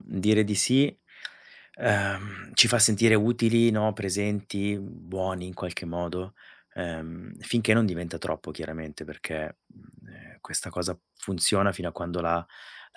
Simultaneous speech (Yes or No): No